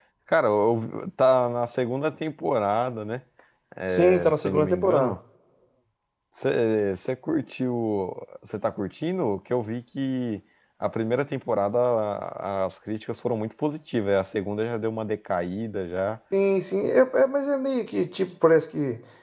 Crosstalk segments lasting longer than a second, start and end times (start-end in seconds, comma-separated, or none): 3.9-5.2